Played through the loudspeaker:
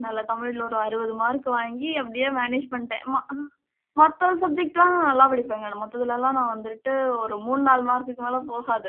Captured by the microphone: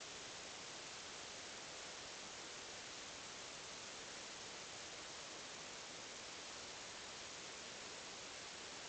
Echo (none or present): none